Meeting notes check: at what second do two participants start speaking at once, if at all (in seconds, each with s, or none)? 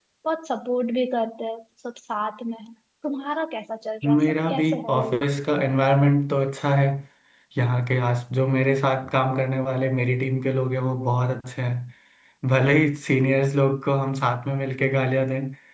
4.0 s